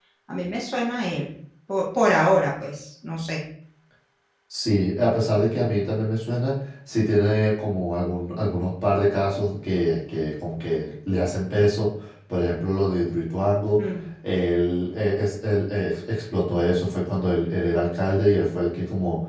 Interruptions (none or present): none